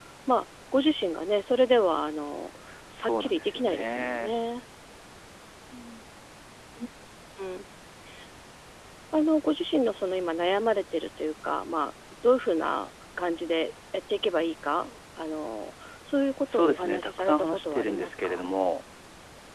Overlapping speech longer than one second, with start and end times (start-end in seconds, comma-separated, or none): 3.0-4.3, 16.5-18.4